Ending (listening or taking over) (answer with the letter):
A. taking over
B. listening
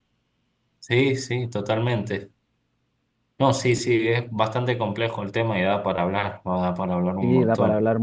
A